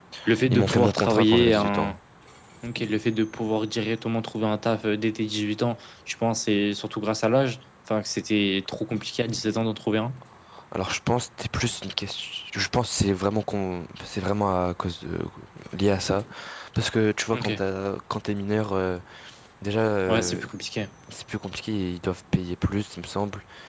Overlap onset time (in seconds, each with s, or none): 0.5 s